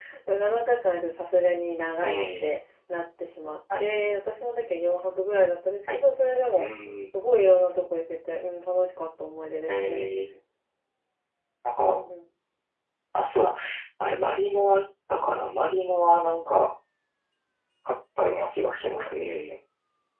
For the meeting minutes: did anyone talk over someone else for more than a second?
No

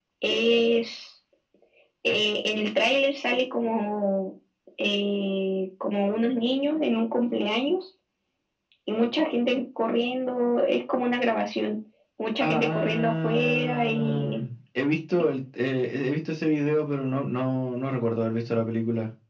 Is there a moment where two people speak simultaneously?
Yes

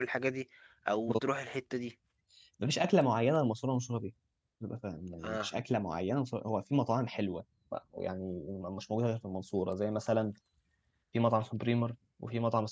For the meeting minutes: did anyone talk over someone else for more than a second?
No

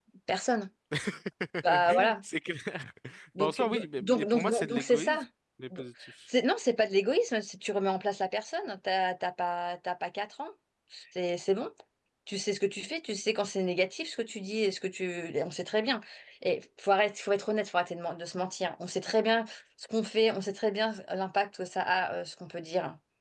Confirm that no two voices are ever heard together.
No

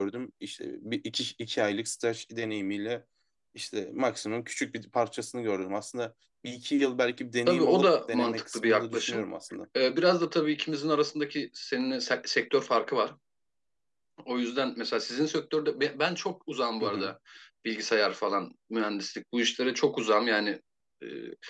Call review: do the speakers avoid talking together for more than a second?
No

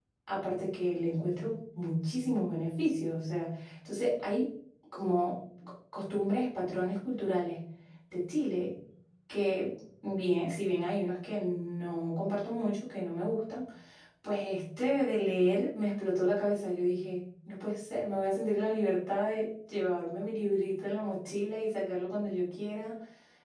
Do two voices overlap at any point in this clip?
No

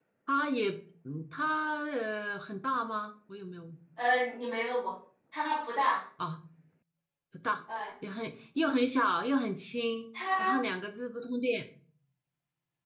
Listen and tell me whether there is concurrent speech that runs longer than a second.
No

